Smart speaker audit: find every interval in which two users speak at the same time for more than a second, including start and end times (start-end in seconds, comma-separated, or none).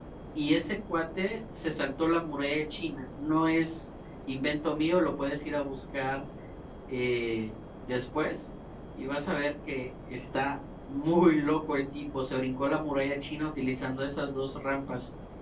none